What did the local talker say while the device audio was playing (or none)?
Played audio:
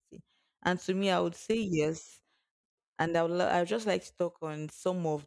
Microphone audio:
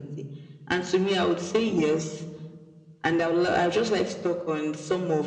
none